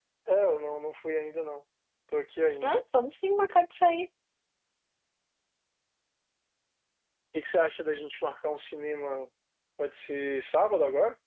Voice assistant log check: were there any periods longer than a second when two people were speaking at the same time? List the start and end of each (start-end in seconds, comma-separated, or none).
none